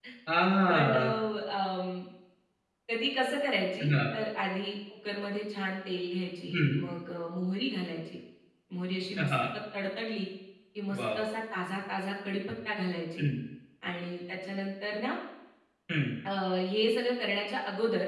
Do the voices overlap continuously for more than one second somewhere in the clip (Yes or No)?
No